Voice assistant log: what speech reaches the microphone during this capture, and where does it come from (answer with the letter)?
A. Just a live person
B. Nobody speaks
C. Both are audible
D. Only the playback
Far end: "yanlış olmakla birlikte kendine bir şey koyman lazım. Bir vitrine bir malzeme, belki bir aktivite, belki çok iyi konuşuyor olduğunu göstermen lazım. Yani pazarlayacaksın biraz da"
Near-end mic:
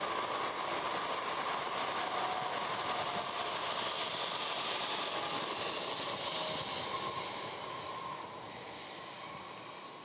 B